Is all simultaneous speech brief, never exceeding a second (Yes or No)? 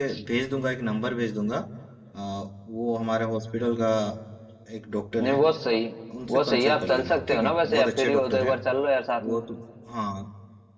No